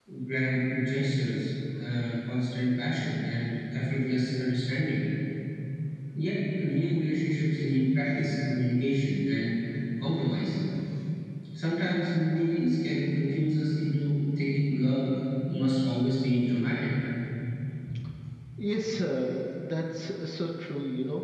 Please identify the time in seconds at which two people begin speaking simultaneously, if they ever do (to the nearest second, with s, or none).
none